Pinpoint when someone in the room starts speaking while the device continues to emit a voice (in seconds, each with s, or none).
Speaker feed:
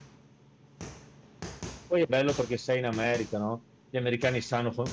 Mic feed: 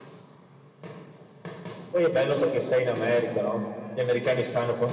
none